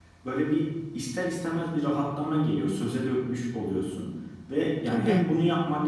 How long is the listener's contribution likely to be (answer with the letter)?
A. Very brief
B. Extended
A